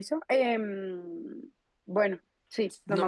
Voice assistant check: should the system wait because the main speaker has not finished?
No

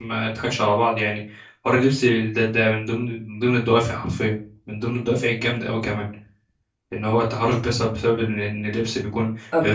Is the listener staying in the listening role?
Yes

